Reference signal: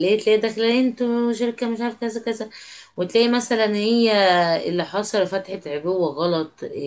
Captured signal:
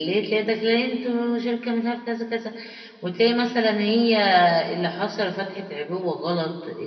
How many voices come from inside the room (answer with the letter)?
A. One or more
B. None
B